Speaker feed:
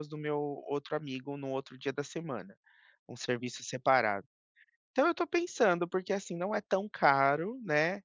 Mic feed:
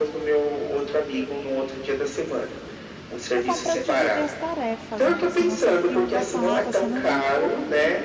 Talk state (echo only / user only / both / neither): both